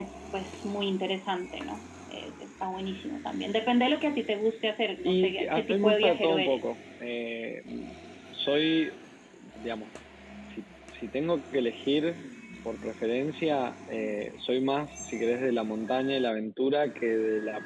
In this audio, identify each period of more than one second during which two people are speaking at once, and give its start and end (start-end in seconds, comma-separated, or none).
5.0-6.8